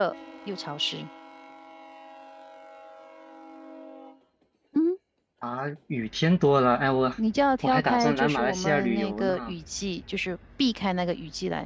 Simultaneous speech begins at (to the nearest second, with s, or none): 8 s